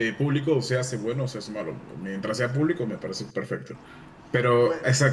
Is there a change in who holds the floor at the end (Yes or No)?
No